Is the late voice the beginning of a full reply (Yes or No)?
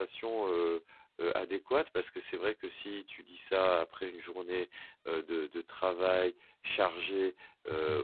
No